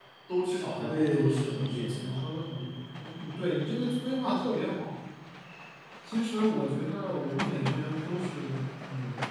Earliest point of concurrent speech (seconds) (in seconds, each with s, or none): 0.8 s